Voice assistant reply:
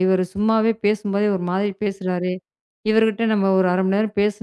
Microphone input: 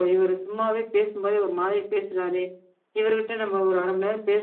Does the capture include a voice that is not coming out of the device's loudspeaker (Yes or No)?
No